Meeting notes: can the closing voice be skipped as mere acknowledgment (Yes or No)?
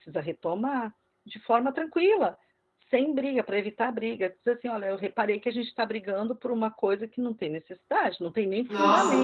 No